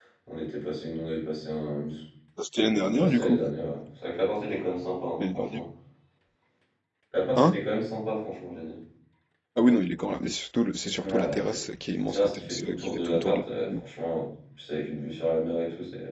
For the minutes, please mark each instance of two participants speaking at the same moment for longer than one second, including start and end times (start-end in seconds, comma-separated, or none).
12.1-13.7